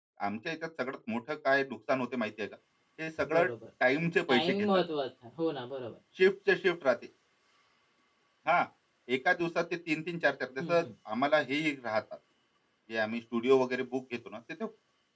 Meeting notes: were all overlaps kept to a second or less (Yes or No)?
Yes